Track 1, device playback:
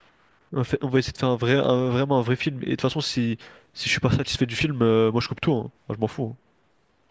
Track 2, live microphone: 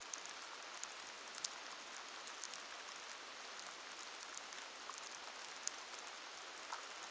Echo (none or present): none